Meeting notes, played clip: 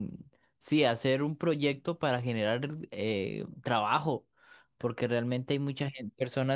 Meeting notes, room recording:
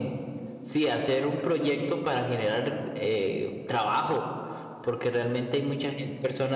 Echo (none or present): present